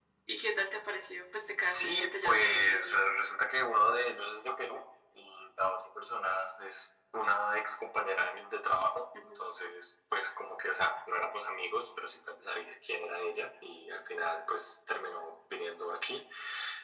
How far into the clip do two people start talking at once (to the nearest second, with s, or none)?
2 s